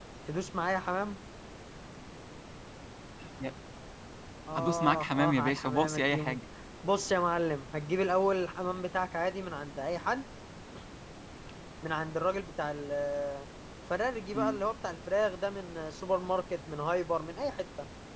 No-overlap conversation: No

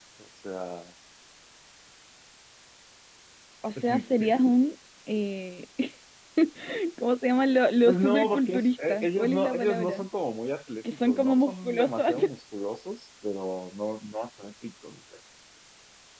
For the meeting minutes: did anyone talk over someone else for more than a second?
Yes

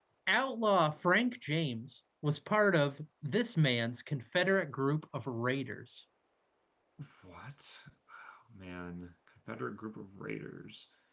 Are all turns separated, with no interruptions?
Yes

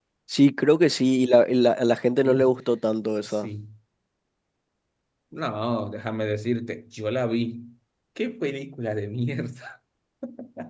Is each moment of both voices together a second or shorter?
Yes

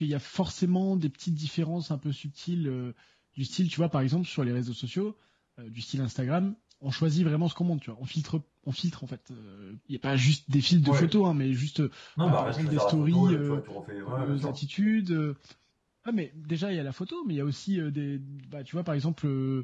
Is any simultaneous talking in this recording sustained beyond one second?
Yes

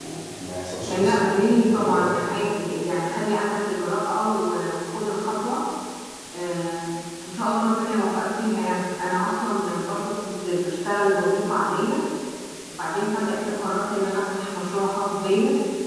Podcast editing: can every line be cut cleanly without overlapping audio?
No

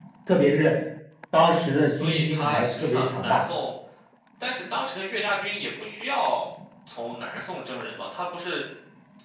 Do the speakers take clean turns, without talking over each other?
No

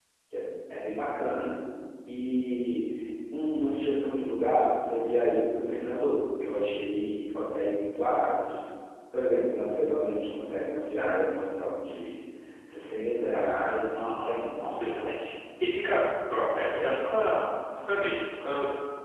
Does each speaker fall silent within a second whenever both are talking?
No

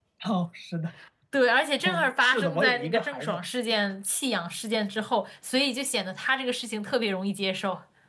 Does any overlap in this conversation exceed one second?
Yes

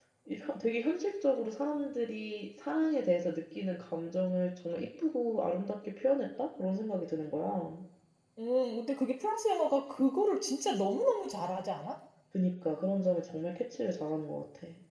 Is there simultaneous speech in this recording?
No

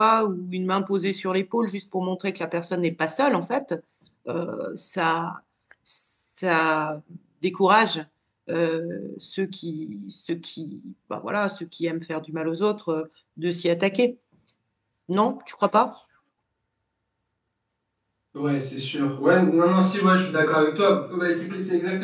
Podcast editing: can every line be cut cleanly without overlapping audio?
Yes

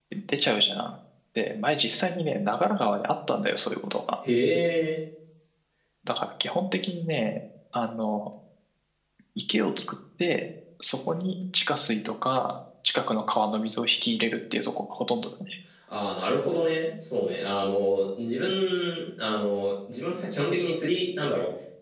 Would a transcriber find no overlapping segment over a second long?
Yes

